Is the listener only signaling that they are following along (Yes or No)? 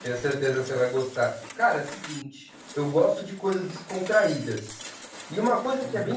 Yes